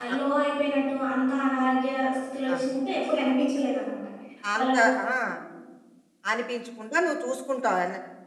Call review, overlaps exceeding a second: none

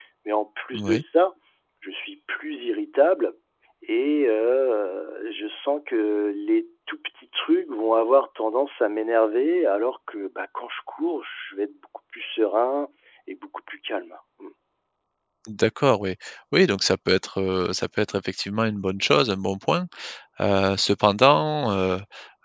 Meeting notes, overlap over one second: none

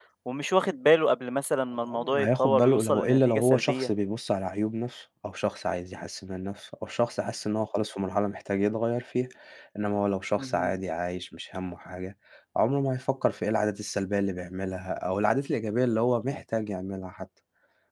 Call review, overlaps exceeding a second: present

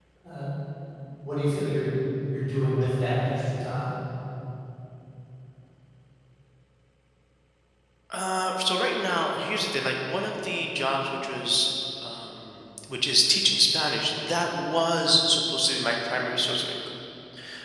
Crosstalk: none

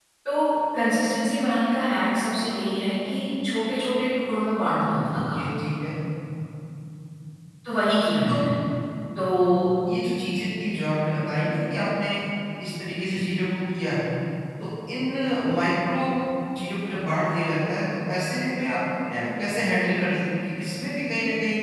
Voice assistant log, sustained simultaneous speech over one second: none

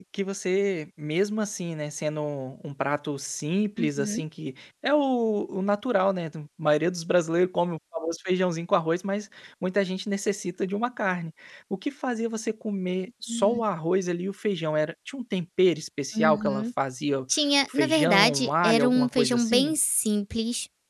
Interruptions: present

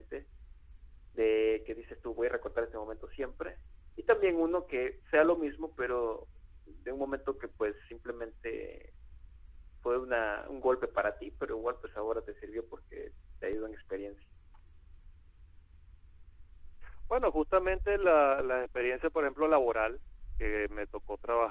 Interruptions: none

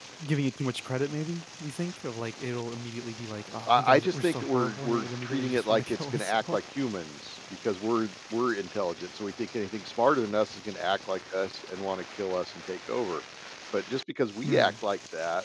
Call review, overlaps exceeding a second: present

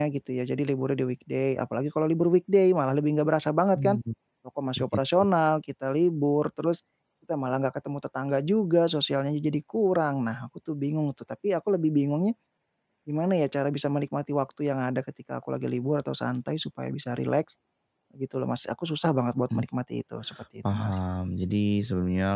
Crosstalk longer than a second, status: none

